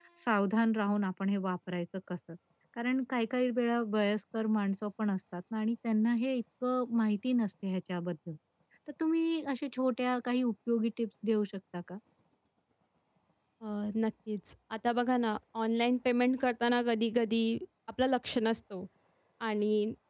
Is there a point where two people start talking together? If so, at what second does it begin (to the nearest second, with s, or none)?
none